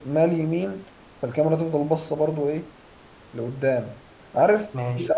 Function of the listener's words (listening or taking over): listening